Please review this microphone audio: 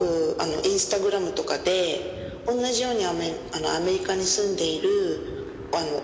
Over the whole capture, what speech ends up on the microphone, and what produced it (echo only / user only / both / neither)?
echo only